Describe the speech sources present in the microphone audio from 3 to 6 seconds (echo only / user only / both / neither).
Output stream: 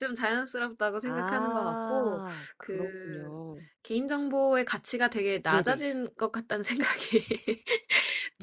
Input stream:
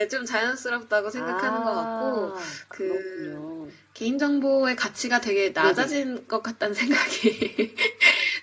echo only